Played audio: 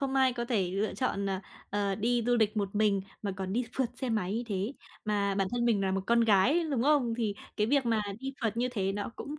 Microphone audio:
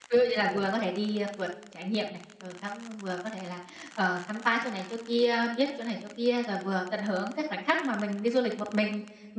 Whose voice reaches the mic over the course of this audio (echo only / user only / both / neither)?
user only